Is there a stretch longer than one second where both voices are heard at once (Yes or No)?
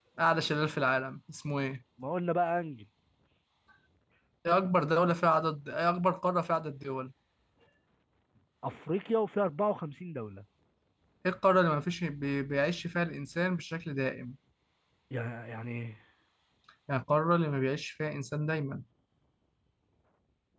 No